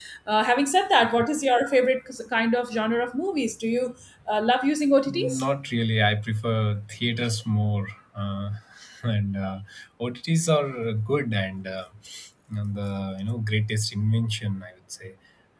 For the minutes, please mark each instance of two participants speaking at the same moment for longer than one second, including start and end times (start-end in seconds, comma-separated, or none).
none